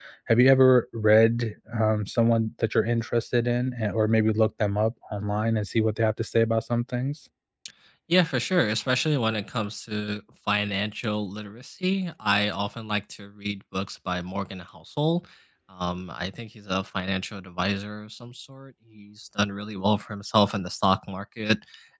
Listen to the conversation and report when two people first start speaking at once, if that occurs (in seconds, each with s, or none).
none